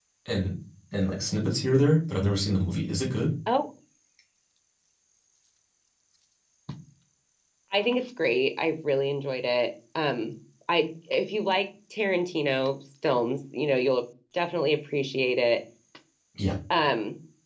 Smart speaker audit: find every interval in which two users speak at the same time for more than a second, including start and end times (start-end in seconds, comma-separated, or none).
none